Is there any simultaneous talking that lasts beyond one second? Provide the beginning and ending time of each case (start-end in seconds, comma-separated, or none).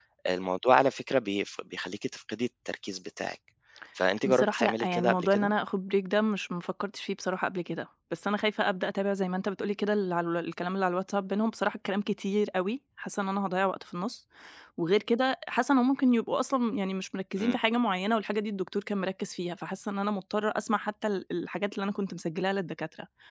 4.2-5.5